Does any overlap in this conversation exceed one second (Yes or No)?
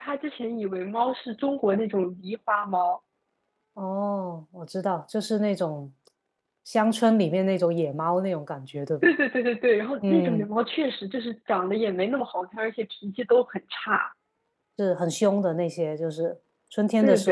No